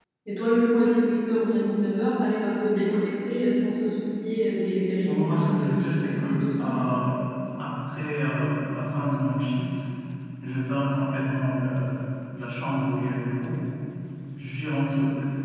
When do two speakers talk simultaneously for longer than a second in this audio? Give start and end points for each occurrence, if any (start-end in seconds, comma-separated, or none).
5.0-6.7